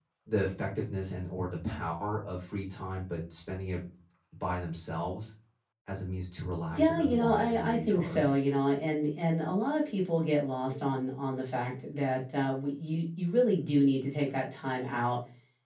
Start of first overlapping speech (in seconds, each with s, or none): 6.7 s